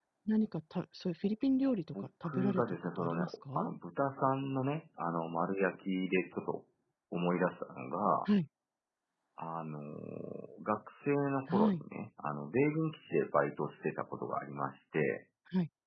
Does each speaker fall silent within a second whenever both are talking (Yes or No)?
No